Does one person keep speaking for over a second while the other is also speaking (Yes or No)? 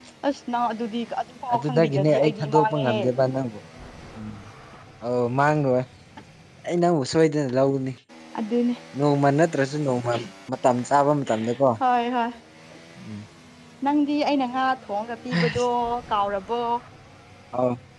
Yes